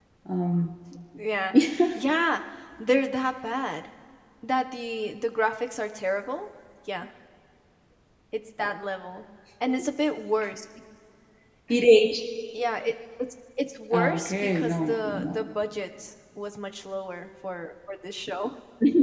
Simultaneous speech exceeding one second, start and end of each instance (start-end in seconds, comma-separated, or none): 13.9-15.4